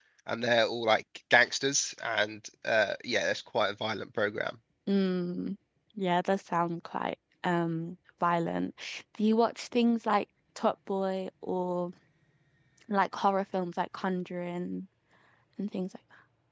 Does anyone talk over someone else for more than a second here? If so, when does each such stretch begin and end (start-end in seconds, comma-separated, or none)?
none